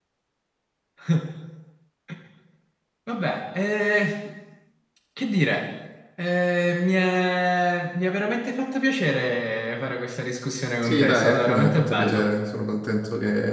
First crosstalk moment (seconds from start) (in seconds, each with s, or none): 10.8 s